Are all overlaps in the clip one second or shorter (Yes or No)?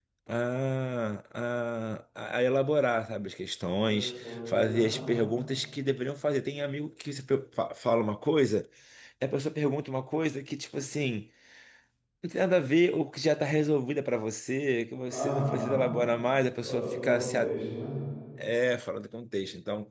No